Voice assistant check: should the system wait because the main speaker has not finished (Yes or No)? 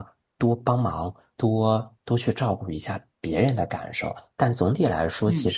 Yes